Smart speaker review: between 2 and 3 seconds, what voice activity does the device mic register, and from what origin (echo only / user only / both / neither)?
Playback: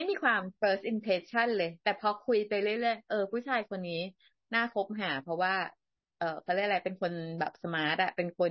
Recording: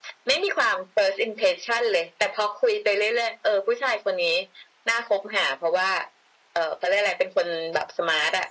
echo only